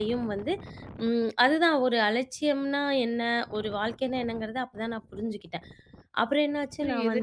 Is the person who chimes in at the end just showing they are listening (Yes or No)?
No